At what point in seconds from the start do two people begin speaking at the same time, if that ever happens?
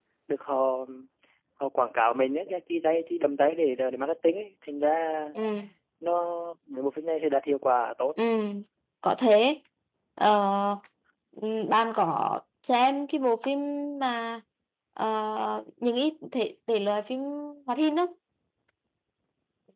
none

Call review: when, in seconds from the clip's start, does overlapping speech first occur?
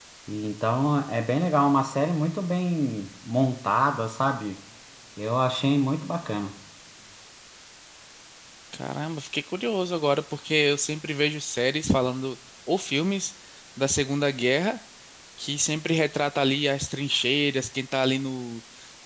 none

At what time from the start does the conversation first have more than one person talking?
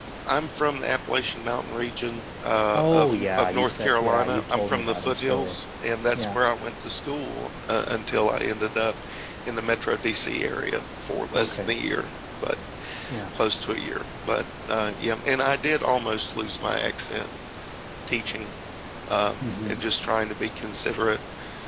2.7 s

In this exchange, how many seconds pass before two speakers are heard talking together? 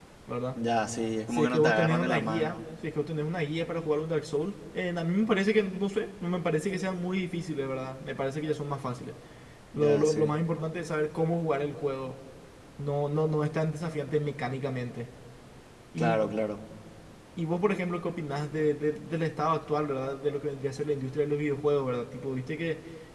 1.3 s

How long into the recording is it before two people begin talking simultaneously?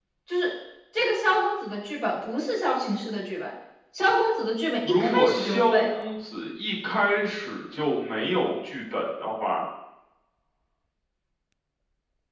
4.8 s

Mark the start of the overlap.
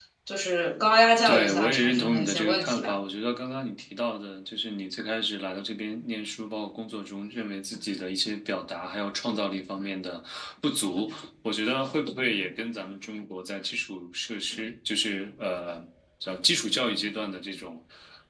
1.2 s

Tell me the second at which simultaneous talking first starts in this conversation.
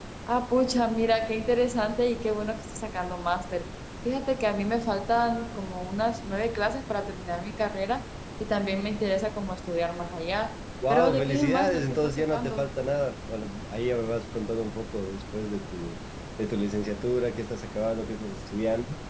10.8 s

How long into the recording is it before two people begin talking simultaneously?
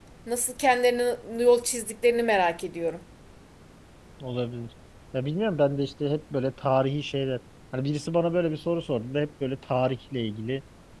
none

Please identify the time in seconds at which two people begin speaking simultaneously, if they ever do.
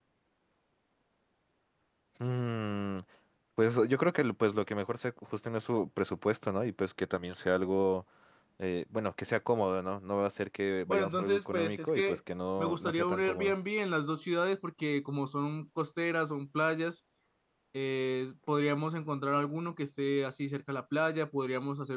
10.9 s

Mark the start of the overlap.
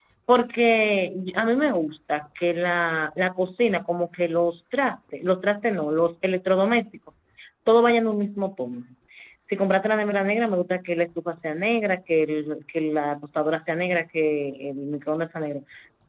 none

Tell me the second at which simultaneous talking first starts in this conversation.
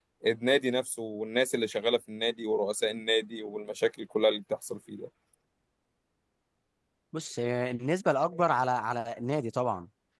none

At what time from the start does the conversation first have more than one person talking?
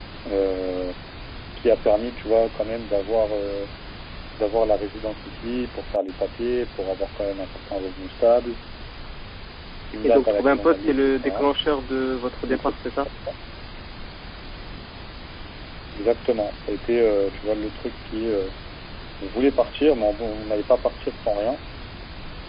10.0 s

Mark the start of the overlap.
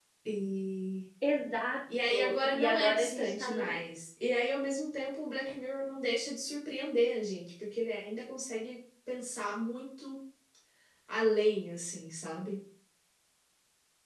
2.1 s

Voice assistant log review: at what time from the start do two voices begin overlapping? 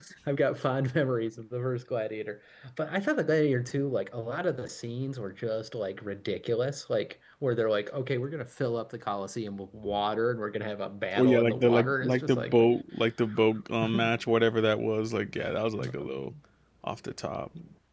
11.1 s

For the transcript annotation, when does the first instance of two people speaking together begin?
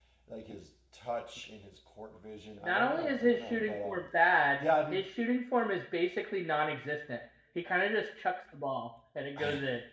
2.6 s

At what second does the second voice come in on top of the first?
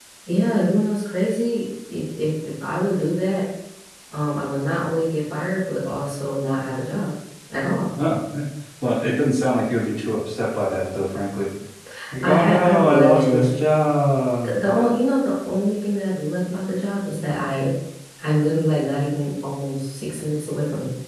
12.2 s

